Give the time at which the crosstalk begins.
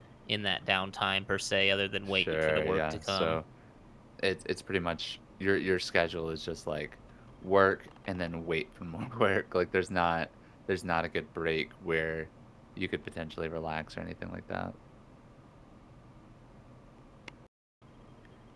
2.1 s

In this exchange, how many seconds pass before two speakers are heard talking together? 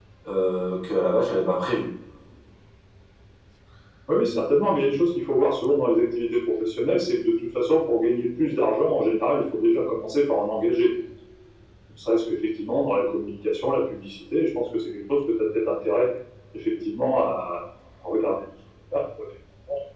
none

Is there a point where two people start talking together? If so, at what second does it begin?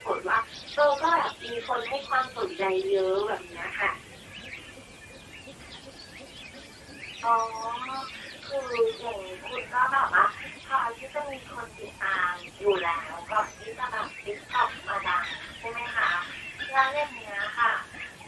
none

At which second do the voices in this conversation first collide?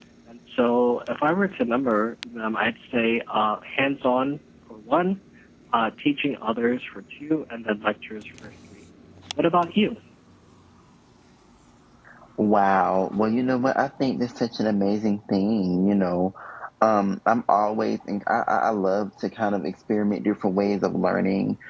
none

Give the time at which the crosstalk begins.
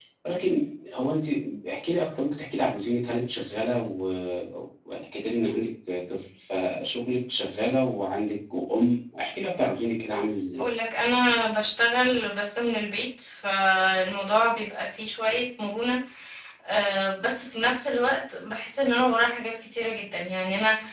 none

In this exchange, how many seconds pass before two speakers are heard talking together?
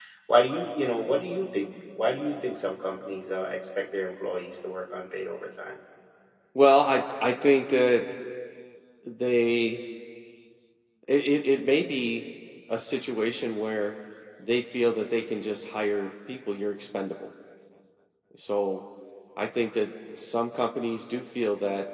none

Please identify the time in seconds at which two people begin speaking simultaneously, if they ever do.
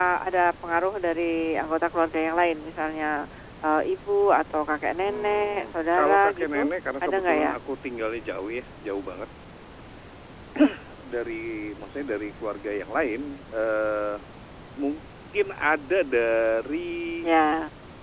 5.0 s

